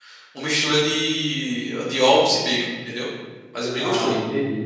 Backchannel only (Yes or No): No